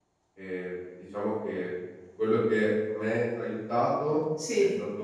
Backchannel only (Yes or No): Yes